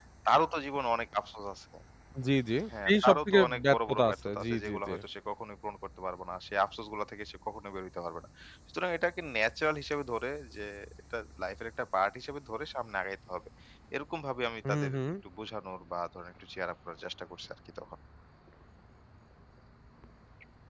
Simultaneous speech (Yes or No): Yes